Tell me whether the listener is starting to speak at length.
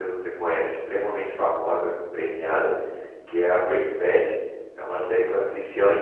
No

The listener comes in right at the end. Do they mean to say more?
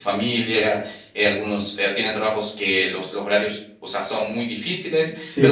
No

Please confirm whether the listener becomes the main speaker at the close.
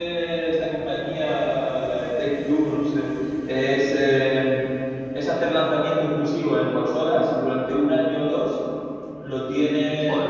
No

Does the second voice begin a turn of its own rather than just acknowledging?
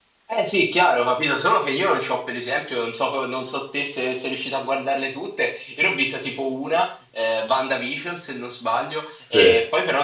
No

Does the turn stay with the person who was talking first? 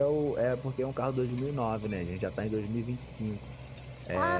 No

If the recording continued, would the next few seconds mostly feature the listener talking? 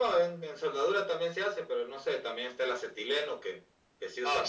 No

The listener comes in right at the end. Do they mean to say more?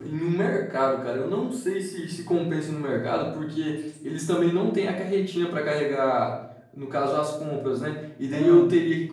No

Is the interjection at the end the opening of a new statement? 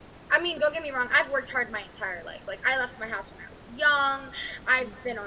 No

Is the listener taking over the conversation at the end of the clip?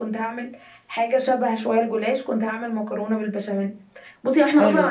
No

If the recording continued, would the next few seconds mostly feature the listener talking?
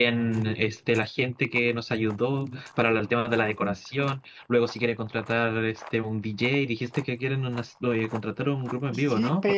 Yes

